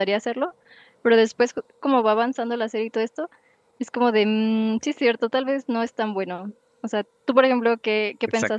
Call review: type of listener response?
taking over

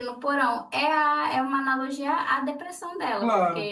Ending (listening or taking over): listening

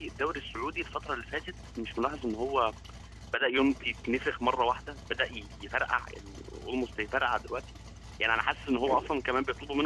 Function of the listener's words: listening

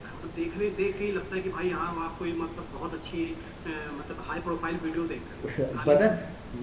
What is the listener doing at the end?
taking over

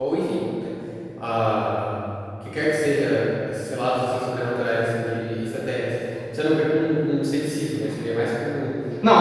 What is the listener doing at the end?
taking over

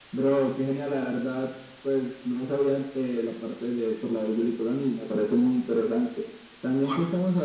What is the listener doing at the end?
listening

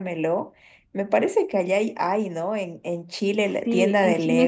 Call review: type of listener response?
taking over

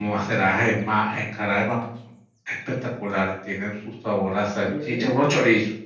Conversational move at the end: listening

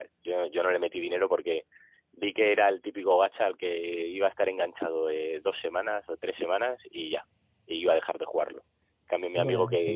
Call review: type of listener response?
listening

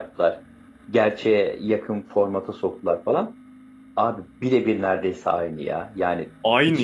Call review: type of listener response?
listening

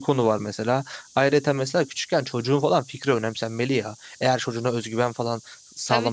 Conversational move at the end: taking over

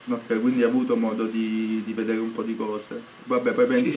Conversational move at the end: listening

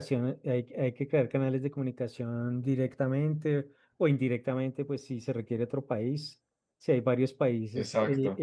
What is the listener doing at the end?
listening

